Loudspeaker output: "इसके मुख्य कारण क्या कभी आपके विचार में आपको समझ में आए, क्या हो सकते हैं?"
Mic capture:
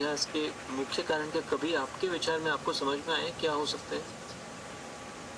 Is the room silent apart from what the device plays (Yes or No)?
Yes